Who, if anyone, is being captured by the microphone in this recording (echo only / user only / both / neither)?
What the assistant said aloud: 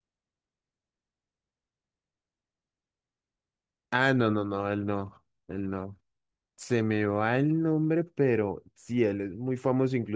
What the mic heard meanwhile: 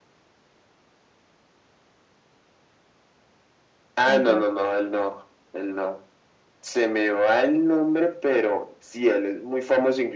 both